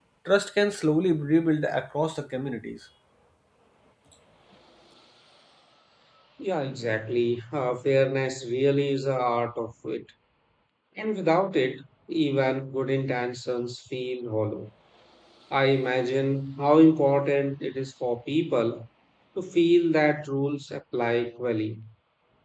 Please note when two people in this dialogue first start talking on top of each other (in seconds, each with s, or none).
none